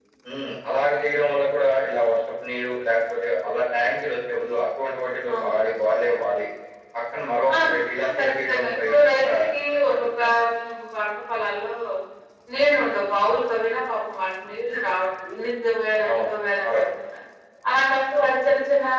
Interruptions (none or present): present